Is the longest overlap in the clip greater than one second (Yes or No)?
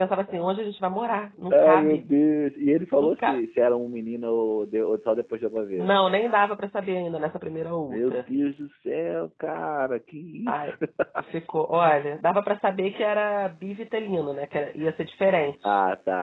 No